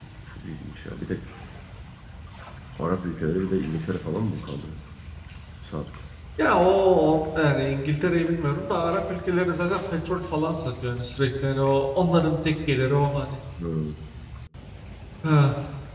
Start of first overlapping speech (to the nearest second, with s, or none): none